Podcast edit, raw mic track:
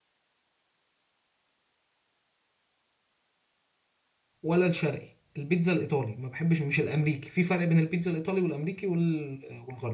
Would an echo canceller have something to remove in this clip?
No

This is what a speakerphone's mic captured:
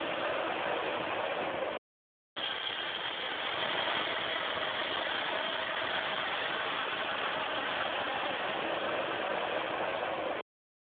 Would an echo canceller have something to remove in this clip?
No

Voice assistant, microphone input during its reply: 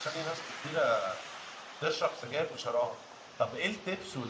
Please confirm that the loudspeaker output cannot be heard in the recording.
Yes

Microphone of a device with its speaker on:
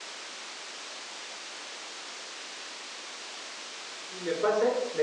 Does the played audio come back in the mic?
No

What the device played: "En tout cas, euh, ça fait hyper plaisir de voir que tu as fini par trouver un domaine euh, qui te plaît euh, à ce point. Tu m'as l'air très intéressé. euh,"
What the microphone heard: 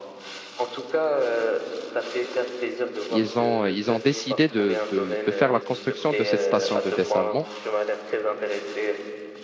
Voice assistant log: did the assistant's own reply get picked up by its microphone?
Yes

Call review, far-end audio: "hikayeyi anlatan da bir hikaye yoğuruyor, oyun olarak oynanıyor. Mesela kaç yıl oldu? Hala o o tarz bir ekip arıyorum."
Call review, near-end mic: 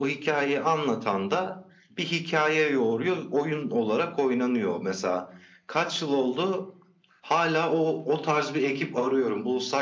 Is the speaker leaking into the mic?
Yes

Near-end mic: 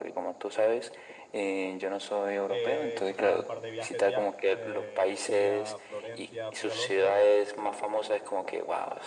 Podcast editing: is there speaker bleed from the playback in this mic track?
Yes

